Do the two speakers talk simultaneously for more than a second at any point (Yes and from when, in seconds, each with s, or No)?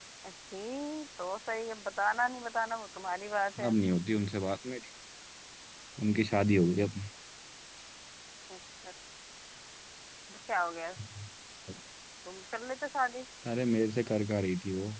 No